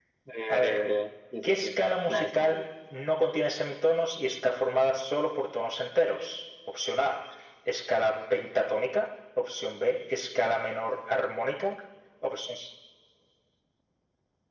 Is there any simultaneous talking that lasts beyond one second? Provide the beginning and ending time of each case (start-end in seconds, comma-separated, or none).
none